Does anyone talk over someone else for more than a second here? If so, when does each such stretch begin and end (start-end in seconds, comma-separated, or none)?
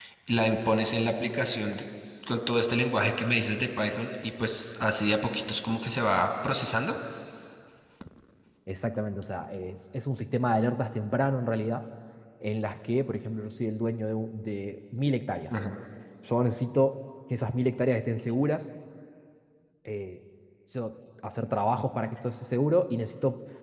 none